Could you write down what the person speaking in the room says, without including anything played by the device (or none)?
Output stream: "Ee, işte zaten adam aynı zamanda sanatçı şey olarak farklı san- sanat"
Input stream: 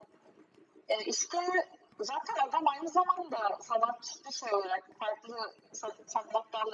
none